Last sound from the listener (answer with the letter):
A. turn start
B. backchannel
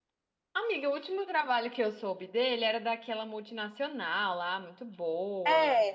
A